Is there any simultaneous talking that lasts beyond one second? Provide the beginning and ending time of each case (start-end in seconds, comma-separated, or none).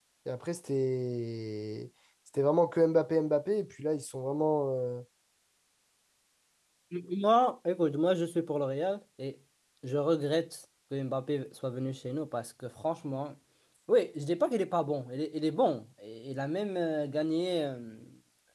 none